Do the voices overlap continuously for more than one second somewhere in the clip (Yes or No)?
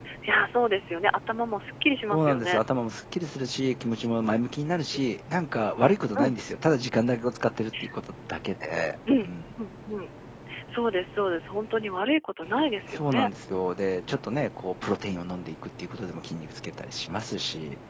No